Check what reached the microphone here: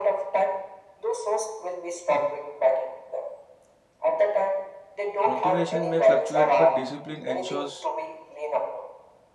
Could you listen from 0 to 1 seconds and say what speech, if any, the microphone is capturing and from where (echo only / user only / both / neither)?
echo only